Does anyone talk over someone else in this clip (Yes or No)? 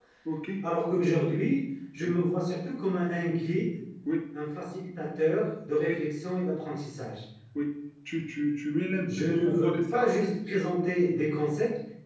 Yes